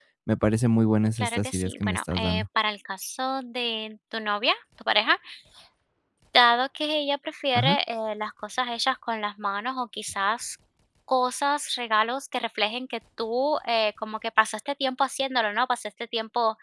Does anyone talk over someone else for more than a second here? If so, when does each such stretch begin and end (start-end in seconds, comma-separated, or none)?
1.2-2.4